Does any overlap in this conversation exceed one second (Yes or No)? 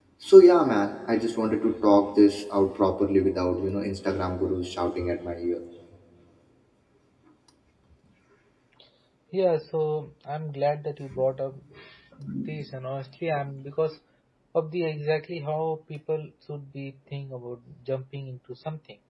No